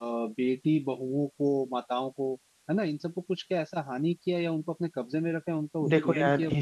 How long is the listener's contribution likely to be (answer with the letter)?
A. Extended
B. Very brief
A